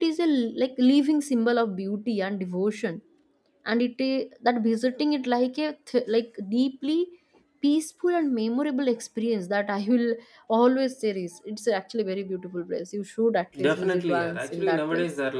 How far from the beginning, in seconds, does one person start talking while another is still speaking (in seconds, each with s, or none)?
13.6 s